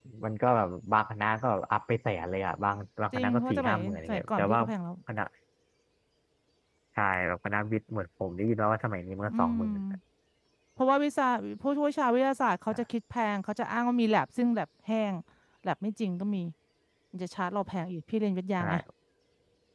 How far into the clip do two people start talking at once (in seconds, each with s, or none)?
3.1 s